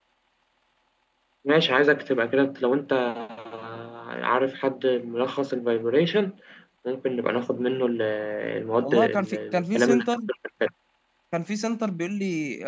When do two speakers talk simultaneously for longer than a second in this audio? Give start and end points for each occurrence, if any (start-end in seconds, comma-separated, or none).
8.8-10.1